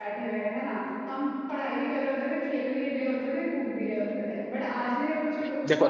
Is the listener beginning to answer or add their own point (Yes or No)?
No